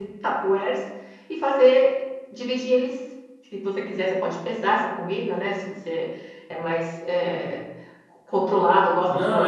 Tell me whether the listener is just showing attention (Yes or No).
No